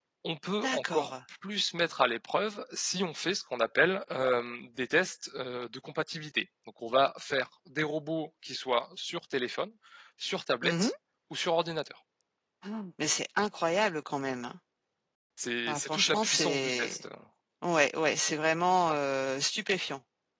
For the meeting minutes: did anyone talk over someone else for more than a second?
Yes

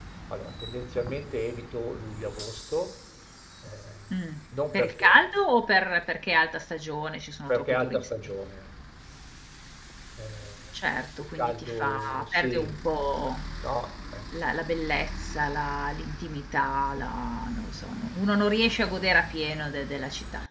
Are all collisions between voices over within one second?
No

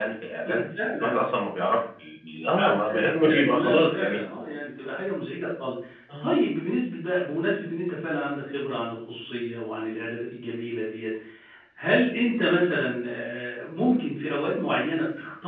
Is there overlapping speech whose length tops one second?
Yes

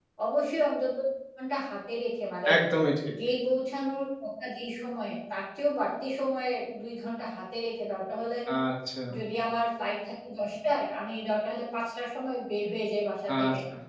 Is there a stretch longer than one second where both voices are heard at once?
No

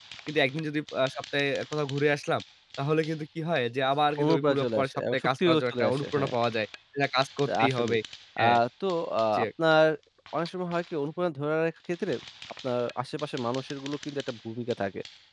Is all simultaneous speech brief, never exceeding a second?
No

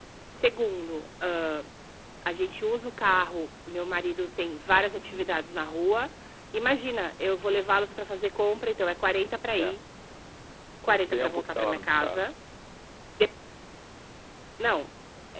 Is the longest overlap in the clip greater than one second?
Yes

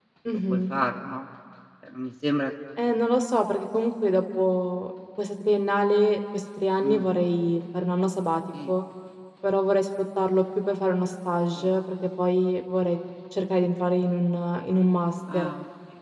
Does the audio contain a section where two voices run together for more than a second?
No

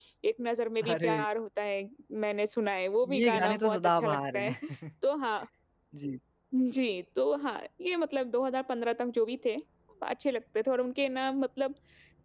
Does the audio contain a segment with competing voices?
Yes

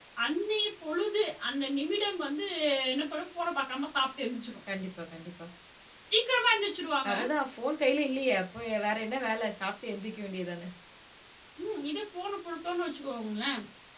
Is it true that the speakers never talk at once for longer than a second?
Yes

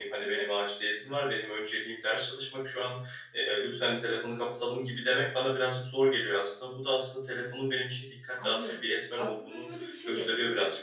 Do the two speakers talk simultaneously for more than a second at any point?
Yes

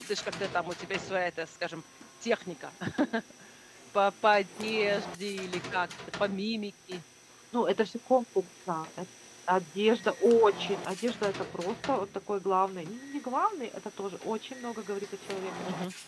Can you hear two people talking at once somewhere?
No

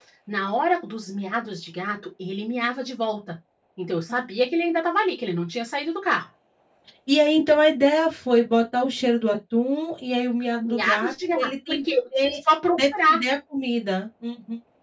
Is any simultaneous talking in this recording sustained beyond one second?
Yes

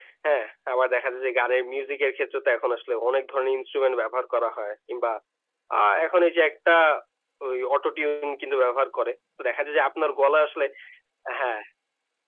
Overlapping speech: No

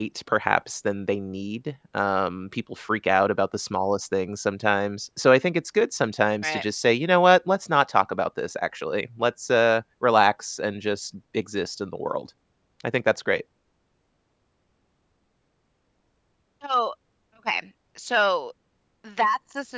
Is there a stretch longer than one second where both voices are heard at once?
No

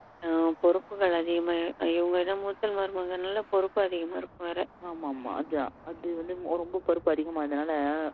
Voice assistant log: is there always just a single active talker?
Yes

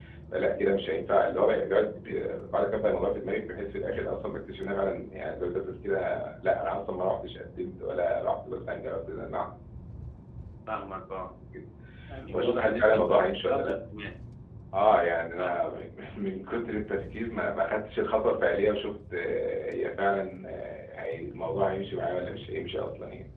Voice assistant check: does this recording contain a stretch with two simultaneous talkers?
Yes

